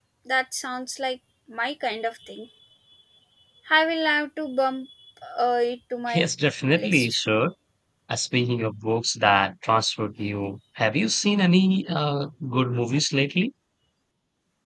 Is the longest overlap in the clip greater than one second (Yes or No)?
No